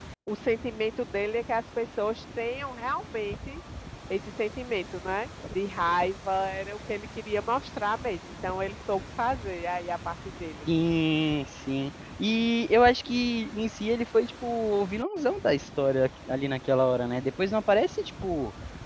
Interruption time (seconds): none

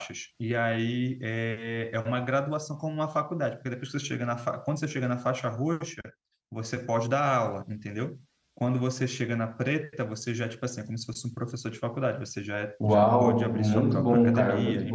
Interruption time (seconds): 12.8 s

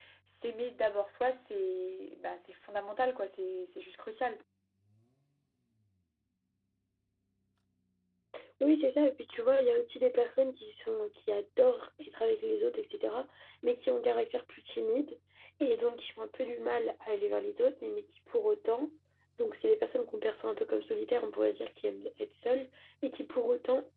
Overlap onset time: none

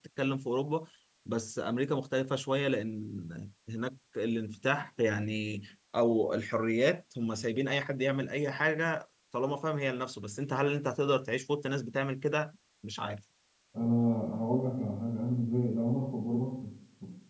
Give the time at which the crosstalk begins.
none

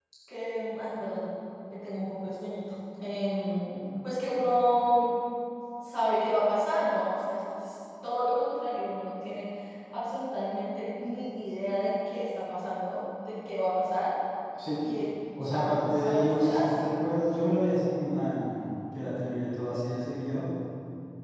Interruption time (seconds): 15.4 s

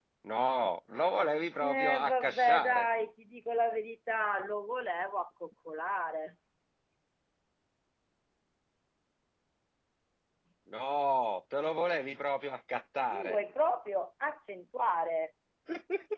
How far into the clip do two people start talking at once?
1.6 s

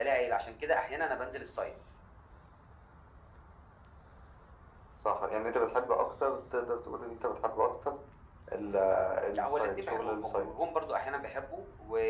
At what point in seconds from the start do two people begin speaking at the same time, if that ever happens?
9.3 s

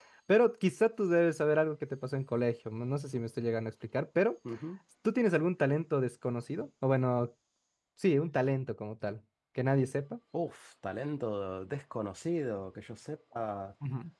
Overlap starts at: none

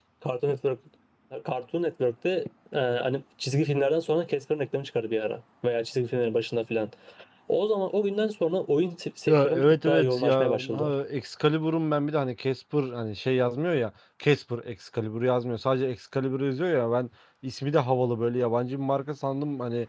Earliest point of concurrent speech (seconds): 9.3 s

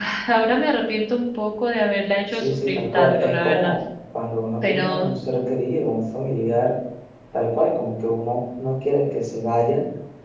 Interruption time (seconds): 2.3 s

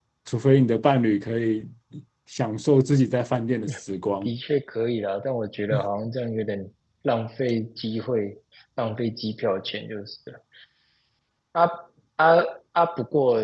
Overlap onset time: none

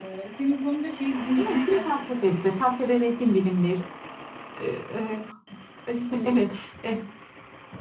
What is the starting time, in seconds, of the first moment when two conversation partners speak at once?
1.4 s

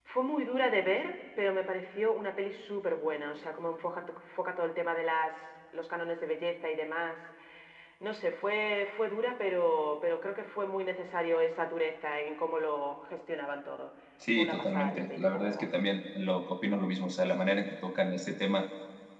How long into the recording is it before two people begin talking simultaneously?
14.2 s

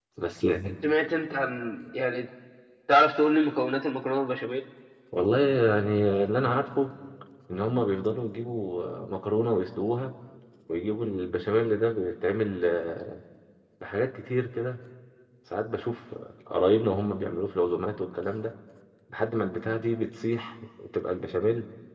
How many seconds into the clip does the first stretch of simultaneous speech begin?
none

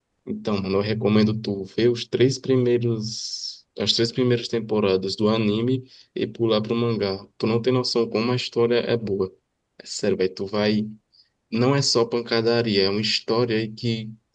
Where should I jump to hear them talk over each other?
none

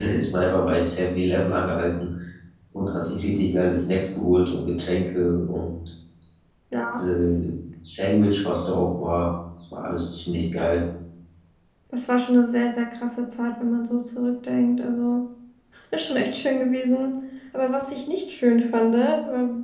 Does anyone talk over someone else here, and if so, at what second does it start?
none

